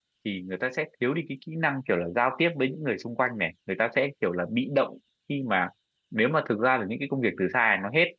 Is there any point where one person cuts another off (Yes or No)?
No